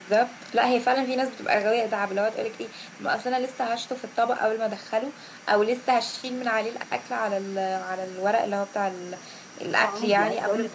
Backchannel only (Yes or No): No